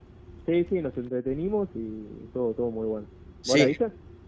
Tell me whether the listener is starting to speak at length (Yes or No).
Yes